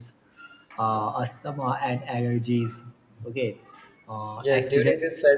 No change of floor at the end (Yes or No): No